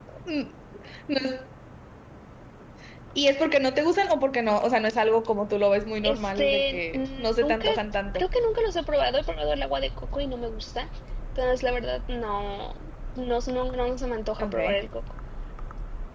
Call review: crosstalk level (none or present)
present